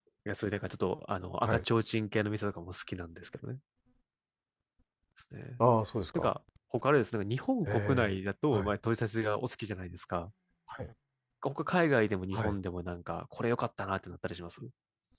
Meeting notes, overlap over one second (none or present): none